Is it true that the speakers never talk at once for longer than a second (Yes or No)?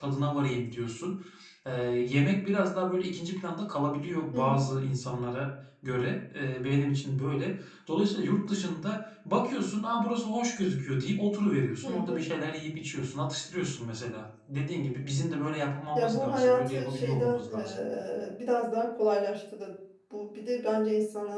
No